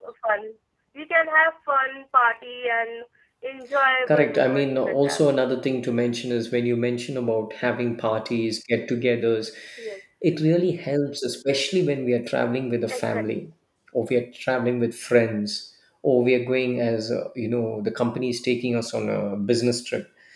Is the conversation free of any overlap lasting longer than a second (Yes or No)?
No